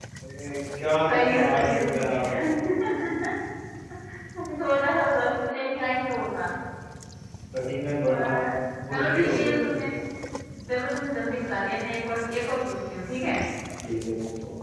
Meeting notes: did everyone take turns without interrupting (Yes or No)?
No